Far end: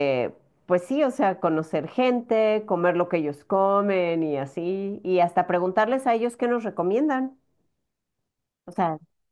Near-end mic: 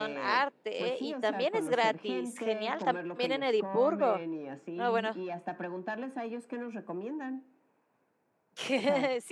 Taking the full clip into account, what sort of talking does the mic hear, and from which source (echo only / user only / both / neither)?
both